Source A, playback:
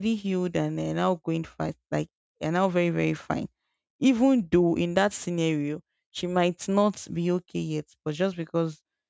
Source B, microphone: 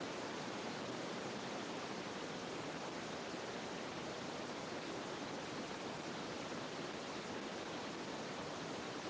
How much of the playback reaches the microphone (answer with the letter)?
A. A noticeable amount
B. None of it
B